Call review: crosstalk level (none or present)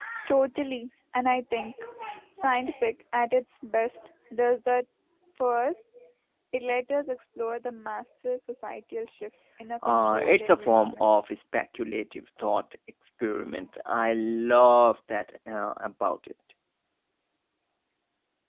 present